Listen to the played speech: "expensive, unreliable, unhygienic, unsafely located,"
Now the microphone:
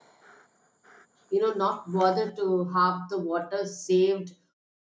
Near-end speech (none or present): present